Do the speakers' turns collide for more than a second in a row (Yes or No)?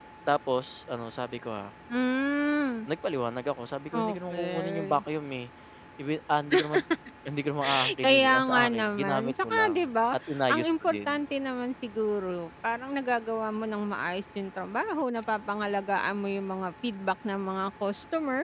Yes